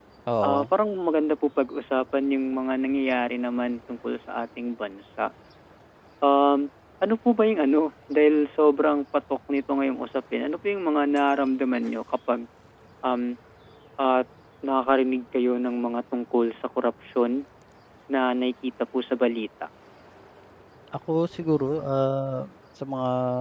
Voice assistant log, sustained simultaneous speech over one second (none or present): none